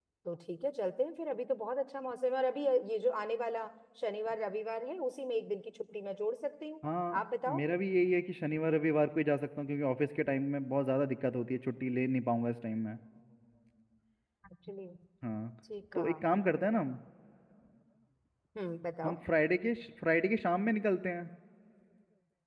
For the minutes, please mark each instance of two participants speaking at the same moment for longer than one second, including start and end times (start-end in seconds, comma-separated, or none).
none